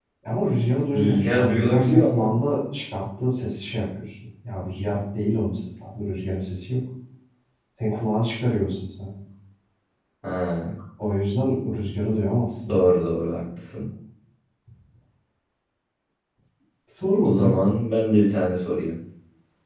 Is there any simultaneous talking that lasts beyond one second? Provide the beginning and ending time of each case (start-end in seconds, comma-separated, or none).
0.9-2.3